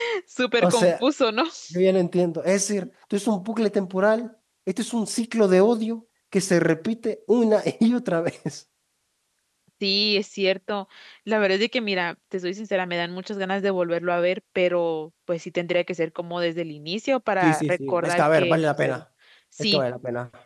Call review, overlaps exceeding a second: present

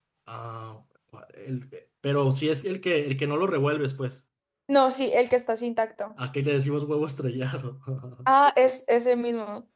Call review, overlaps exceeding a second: none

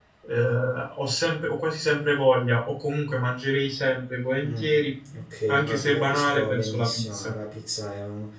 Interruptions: present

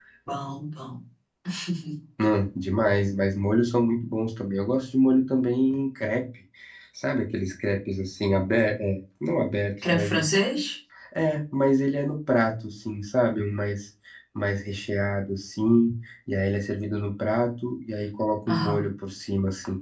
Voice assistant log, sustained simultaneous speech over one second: none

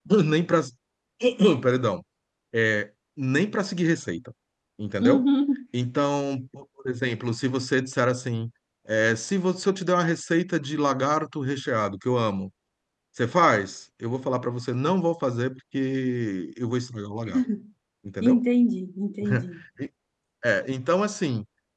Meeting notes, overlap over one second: none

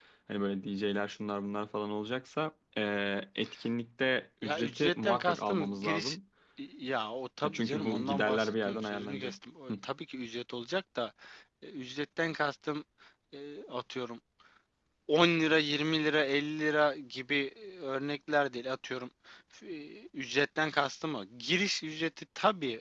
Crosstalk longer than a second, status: present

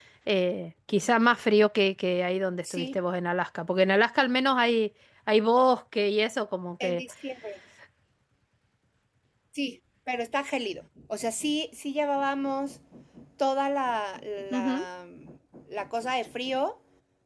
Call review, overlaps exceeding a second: none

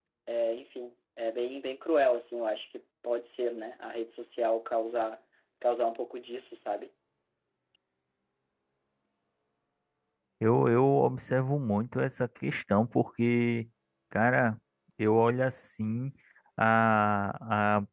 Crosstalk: none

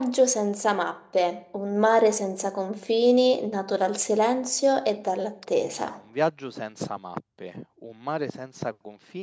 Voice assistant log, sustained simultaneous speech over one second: none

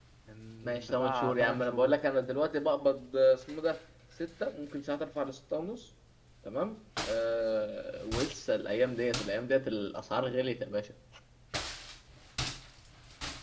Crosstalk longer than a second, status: present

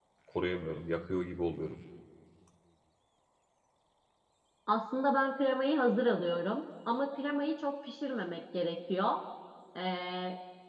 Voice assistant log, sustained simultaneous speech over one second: none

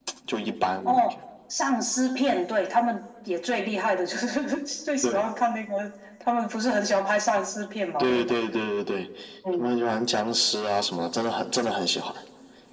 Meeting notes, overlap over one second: none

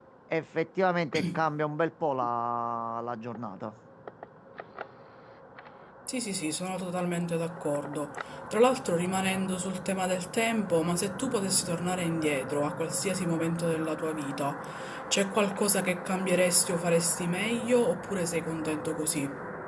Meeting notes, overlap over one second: none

